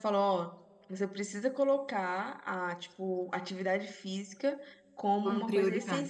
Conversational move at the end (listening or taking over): listening